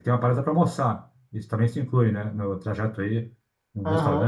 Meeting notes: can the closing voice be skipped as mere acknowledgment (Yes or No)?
No